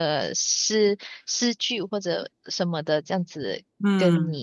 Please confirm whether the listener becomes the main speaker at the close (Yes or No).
No